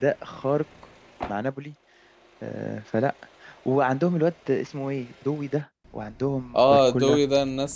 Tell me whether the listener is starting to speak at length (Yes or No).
Yes